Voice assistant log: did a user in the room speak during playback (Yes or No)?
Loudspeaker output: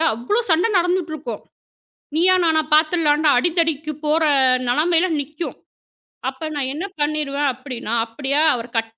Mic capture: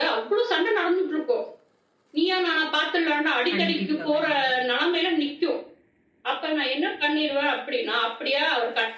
Yes